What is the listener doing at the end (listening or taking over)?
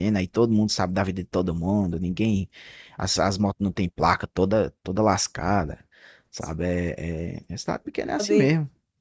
taking over